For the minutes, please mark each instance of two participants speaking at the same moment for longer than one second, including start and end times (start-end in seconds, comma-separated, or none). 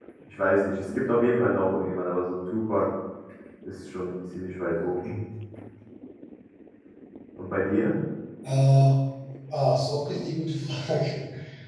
none